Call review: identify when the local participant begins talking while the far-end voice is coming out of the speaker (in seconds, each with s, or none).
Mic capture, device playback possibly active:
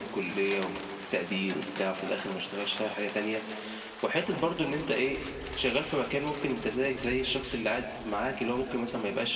none